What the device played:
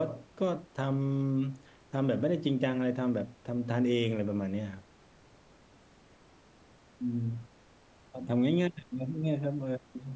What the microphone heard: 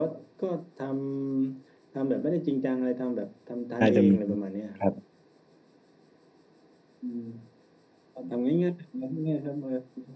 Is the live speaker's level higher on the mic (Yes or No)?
Yes